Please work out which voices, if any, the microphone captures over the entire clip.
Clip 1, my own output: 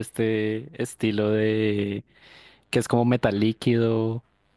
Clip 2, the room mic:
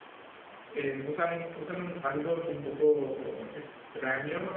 user only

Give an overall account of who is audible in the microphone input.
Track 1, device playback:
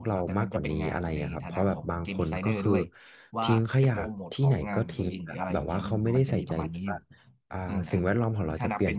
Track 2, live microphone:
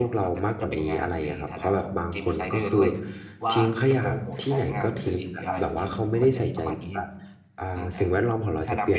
echo only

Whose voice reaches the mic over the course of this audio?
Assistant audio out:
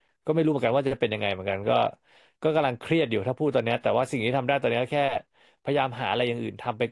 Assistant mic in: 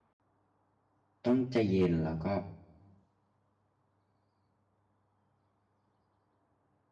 user only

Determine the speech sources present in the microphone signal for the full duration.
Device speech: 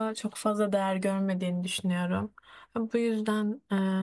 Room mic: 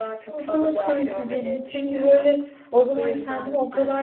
both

